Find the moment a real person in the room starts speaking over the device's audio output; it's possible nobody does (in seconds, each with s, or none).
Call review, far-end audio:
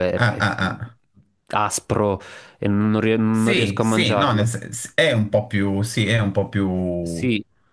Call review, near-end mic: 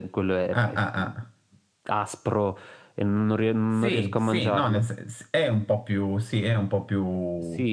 none